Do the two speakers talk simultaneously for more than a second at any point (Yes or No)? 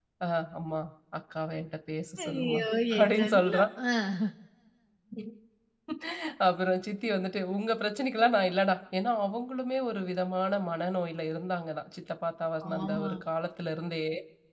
Yes